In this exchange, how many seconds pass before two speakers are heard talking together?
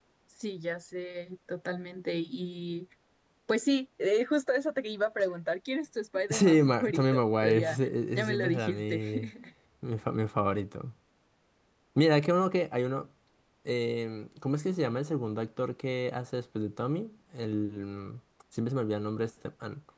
6.3 s

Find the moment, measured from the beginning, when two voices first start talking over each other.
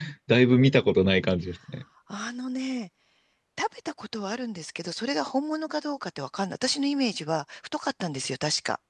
none

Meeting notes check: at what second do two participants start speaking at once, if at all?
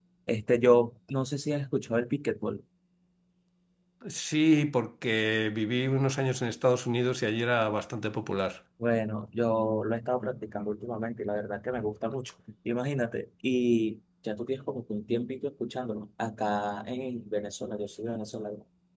none

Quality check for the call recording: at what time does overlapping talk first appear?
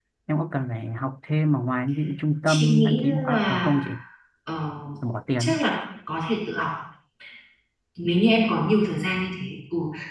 2.5 s

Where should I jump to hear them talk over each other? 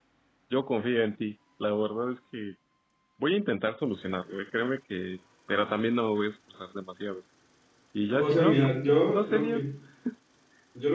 8.2 s

